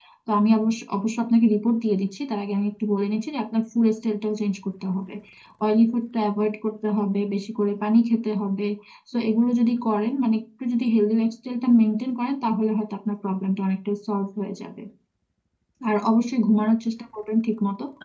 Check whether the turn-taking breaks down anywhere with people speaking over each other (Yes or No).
No